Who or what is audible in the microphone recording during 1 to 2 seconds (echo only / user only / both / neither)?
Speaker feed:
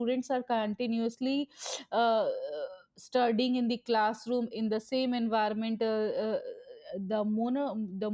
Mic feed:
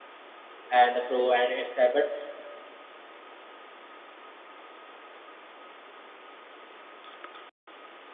user only